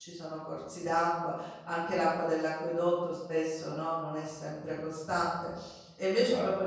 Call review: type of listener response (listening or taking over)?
listening